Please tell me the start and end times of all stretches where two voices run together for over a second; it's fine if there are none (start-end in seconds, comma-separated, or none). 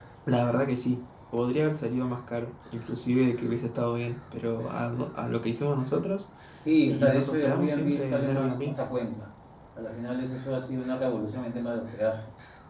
6.9-8.7